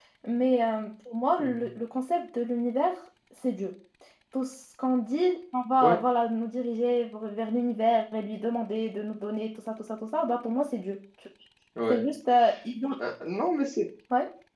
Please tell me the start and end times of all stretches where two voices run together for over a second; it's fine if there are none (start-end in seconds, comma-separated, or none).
none